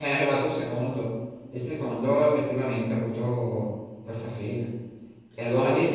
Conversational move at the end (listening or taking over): listening